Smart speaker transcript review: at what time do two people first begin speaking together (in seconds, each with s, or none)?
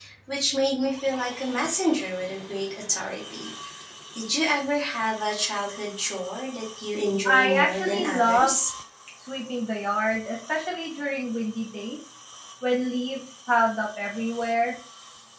7.2 s